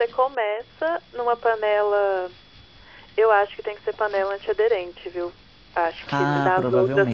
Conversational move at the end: taking over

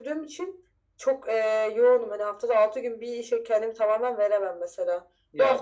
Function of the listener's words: listening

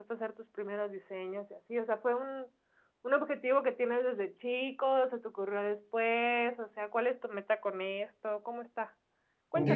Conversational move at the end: taking over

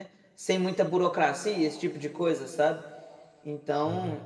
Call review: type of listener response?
listening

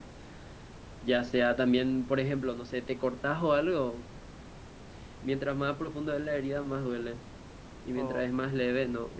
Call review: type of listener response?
listening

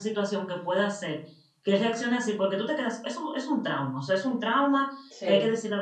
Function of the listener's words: listening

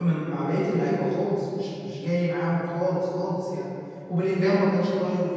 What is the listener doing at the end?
listening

